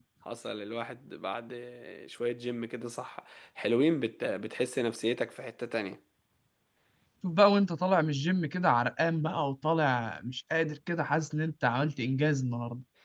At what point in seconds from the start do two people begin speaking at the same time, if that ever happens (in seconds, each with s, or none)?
none